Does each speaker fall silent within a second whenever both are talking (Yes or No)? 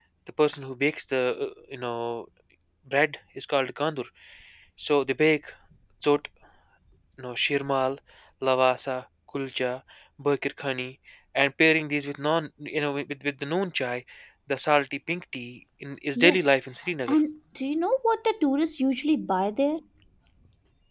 Yes